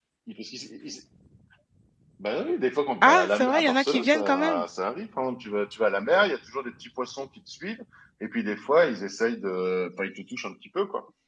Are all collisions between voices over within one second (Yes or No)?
No